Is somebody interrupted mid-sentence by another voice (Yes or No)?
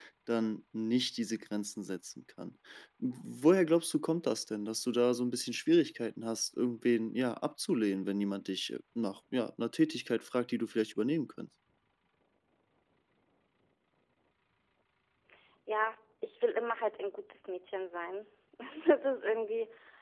No